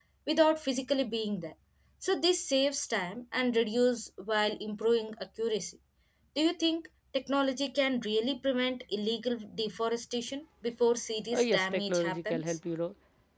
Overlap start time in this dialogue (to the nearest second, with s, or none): 11 s